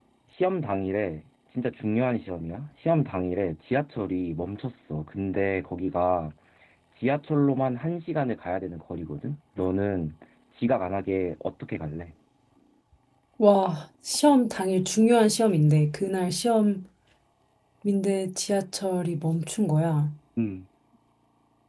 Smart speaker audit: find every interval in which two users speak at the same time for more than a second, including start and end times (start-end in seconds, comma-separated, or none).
none